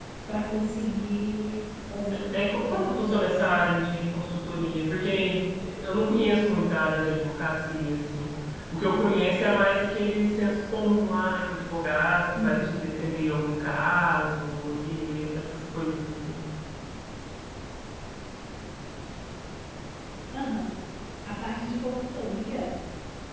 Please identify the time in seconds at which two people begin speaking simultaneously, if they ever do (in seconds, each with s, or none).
2.3 s